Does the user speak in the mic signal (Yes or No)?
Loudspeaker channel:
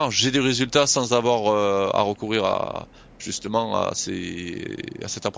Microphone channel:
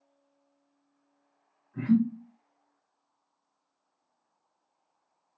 Yes